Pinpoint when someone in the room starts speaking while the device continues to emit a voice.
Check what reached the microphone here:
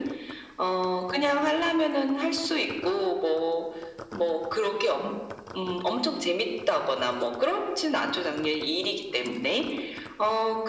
none

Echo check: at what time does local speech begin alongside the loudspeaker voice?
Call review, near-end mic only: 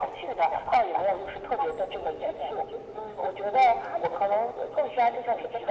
none

